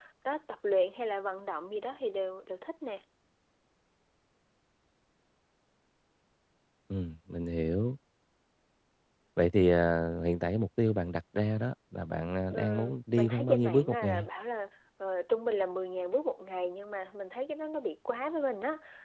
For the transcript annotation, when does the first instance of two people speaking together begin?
12.5 s

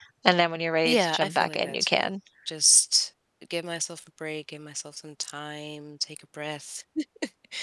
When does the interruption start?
0.8 s

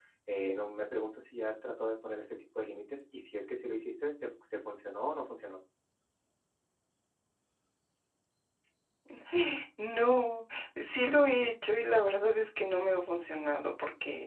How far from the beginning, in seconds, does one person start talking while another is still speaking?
none

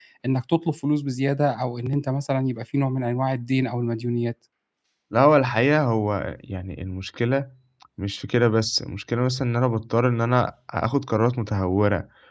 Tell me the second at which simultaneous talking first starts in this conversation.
none

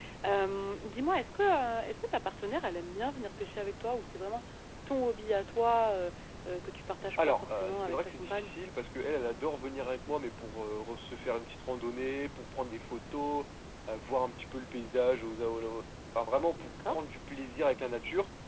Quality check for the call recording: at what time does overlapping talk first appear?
7.2 s

